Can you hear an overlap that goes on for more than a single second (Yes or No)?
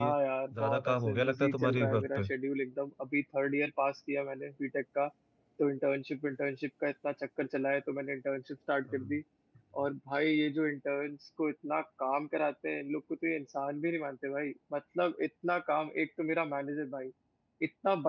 Yes